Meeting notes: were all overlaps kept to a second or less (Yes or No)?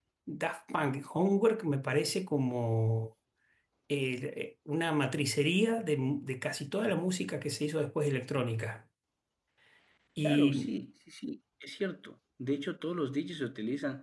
Yes